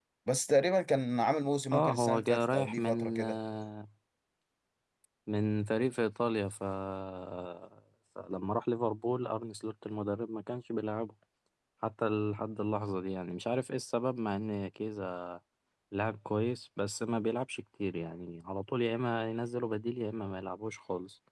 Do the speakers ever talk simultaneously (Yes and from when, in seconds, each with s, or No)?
Yes, from 1.7 s